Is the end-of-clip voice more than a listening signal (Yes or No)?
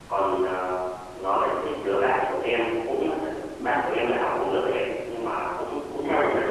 No